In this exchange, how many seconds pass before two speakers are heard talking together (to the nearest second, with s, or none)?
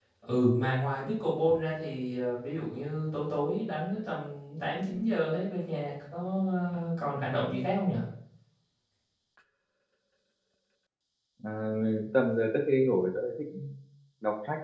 none